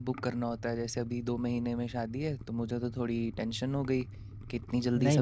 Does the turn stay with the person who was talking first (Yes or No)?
No